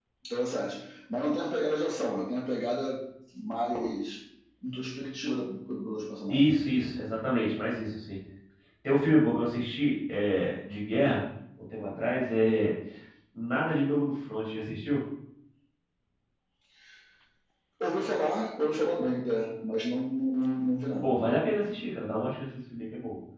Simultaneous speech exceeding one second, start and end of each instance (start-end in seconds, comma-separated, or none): none